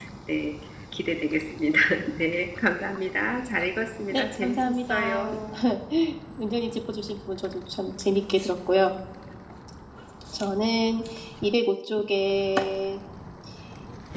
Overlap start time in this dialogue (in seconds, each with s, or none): 4.1 s